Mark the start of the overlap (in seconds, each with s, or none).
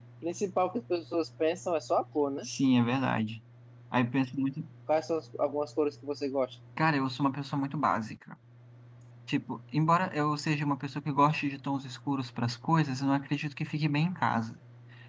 none